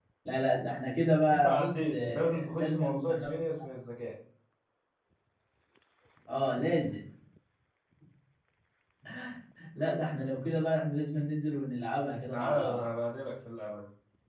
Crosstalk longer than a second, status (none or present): present